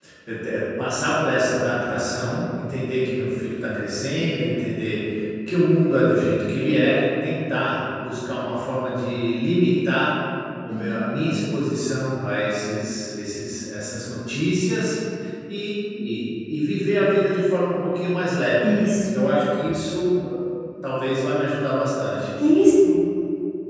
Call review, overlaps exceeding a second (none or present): none